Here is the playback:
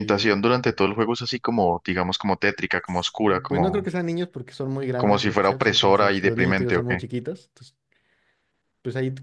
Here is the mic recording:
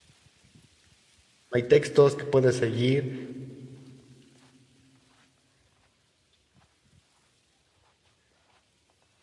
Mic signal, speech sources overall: user only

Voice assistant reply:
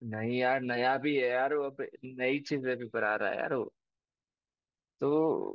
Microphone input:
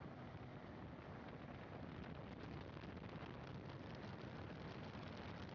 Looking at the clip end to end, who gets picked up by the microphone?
neither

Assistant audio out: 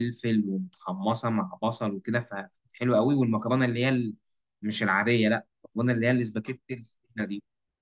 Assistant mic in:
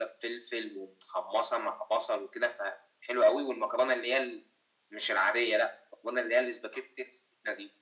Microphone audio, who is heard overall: echo only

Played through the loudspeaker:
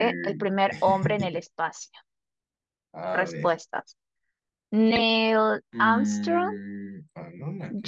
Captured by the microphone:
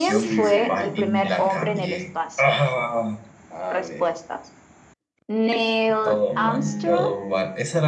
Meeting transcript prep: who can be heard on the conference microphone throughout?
both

